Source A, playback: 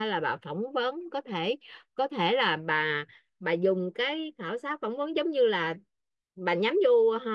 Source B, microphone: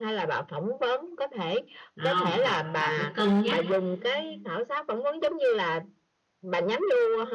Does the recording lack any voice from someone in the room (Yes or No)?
No